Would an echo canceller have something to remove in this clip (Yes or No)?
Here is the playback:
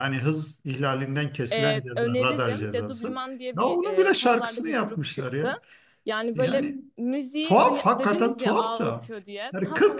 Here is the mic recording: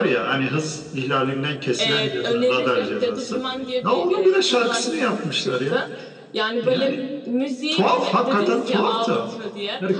Yes